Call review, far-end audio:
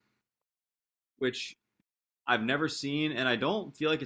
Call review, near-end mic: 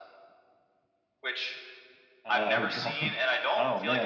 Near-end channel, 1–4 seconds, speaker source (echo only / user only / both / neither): both